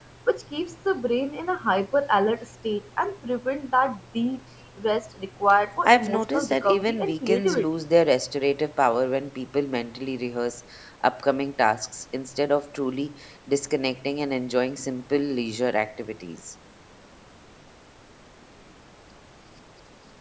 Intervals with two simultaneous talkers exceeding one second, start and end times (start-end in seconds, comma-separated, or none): 5.8-7.7